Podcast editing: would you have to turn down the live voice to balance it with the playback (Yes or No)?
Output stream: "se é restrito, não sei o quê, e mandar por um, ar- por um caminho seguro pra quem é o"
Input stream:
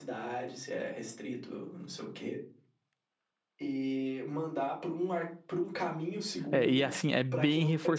Yes